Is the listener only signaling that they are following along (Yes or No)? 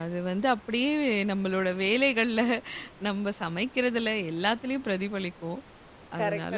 No